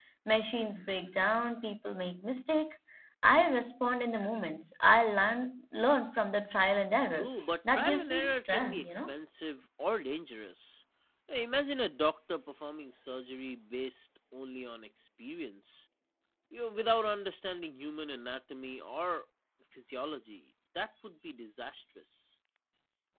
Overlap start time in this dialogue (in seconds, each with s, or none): 7.1 s